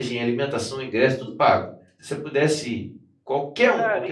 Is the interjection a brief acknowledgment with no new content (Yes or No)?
No